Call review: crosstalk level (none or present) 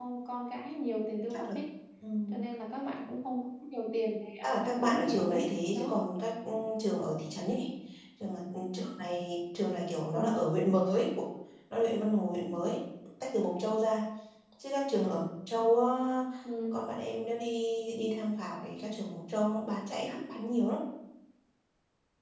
present